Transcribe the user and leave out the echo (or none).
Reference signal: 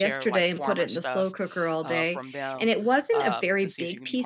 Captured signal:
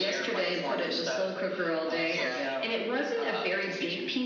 Yeah.